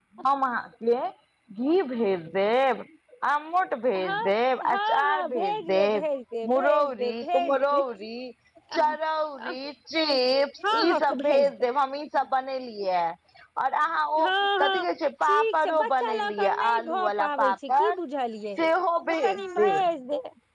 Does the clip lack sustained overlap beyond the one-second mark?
No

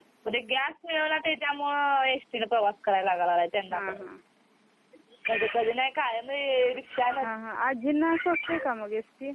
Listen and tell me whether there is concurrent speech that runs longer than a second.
No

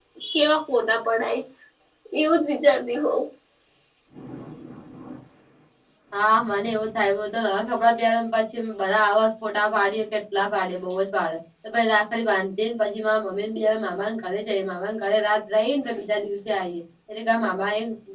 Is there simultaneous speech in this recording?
No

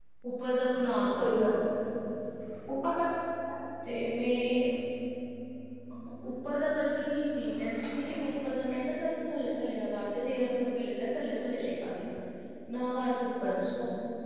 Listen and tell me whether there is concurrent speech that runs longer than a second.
No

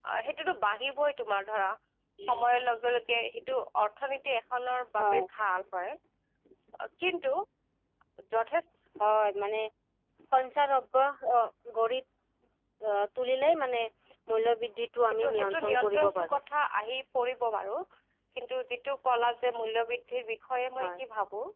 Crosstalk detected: Yes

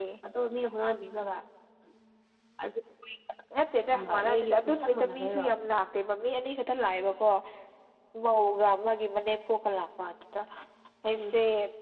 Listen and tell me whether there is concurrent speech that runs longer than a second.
Yes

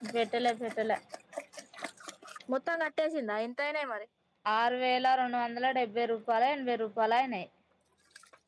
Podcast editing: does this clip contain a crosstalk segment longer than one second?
No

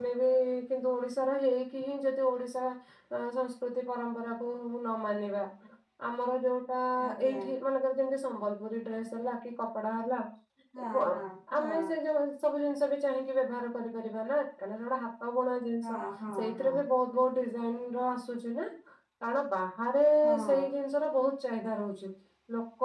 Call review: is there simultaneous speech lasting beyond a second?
No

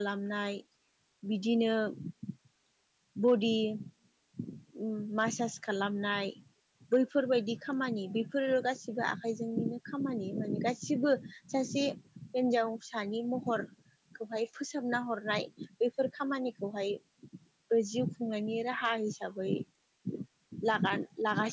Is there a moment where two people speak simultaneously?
No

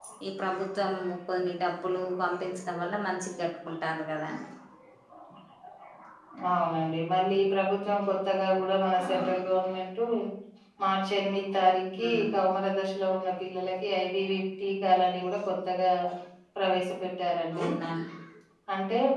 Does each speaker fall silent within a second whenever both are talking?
Yes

